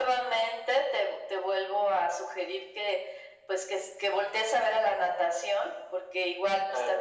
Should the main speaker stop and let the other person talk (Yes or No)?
No